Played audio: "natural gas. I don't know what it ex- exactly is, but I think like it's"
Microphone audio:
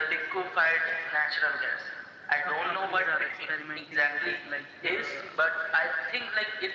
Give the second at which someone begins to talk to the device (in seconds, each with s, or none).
2.4 s